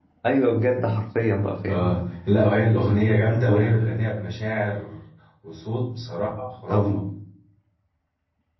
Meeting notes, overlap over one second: none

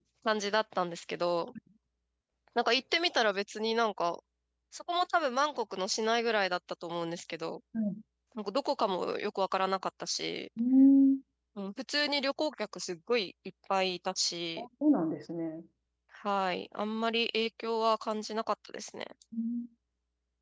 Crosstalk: none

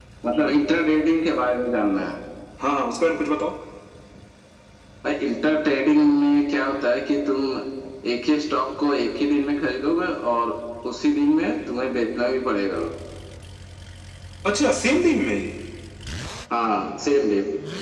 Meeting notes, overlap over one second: none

